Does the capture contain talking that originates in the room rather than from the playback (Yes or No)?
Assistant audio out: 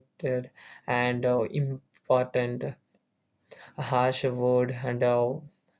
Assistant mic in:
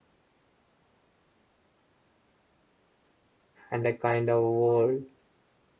Yes